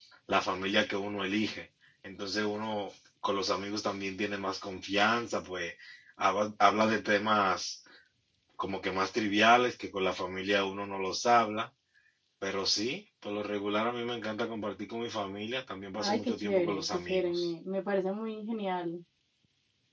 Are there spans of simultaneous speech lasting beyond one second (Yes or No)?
Yes